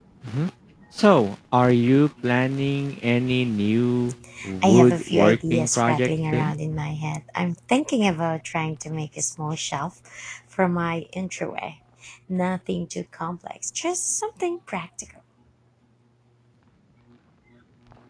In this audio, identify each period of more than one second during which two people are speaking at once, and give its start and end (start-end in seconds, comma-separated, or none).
4.6-6.5